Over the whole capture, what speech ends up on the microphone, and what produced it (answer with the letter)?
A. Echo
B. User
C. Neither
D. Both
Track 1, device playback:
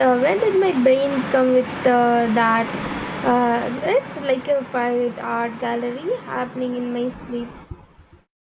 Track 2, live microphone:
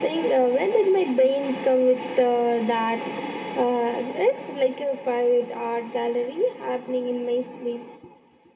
A